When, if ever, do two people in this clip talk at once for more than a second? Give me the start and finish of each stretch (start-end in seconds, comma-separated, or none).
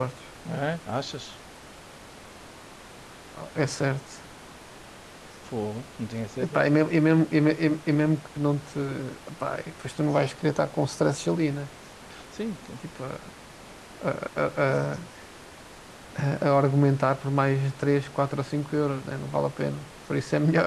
none